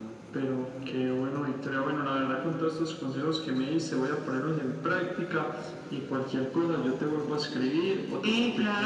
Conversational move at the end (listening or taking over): taking over